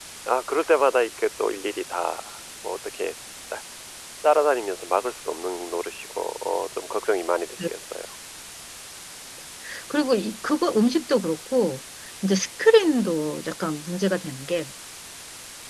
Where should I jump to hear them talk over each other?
none

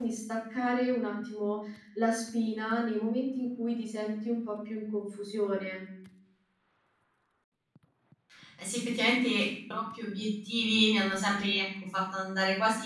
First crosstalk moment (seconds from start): none

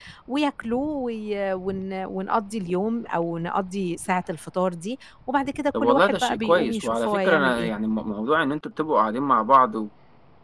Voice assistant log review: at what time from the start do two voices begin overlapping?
5.7 s

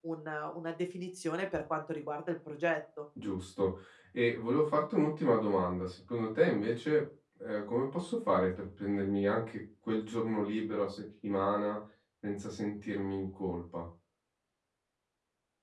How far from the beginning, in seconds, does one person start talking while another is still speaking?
none

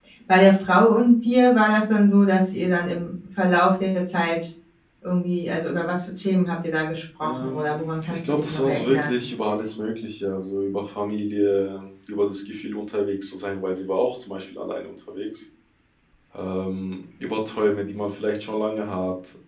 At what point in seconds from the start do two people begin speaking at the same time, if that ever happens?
7.2 s

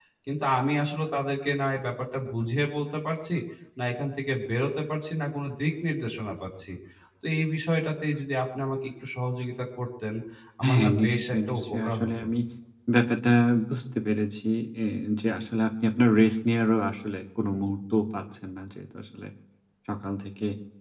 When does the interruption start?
10.7 s

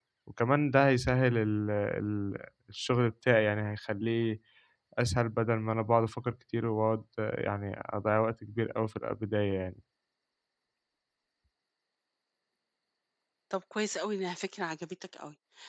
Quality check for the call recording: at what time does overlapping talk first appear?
none

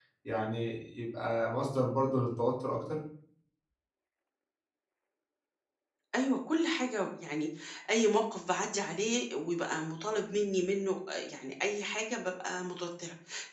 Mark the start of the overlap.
none

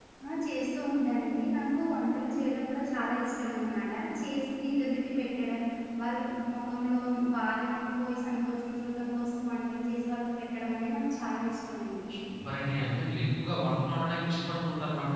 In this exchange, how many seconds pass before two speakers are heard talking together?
none

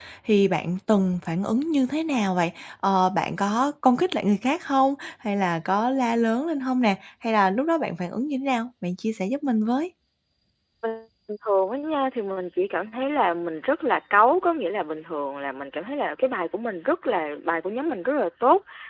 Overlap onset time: none

